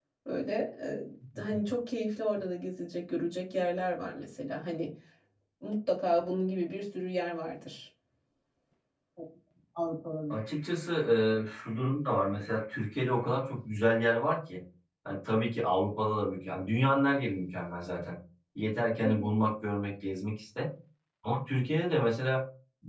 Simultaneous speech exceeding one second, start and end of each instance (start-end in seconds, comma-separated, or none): none